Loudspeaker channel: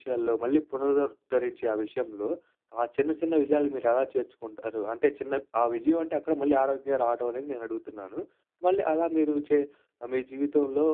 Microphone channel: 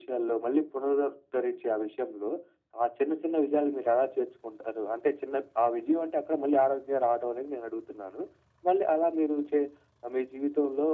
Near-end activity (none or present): none